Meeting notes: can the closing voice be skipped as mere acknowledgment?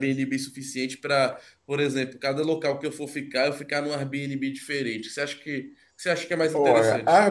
No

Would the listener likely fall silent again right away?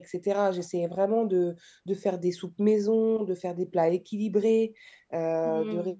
No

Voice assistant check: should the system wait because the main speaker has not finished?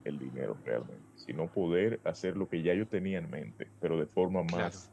Yes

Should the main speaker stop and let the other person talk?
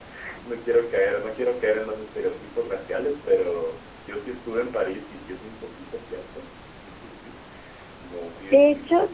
Yes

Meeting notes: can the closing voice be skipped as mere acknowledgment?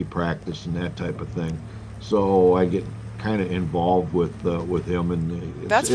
No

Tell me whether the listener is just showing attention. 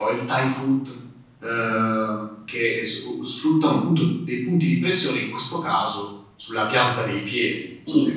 No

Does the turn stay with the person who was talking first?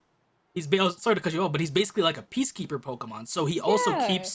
Yes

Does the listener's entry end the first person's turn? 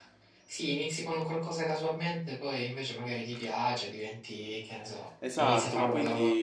Yes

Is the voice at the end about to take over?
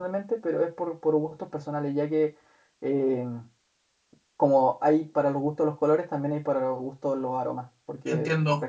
Yes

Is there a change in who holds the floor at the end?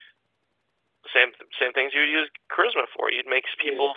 No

